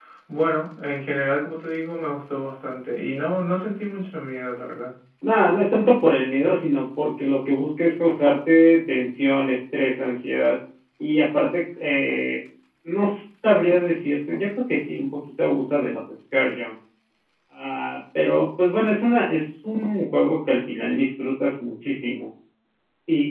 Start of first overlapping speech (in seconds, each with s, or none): none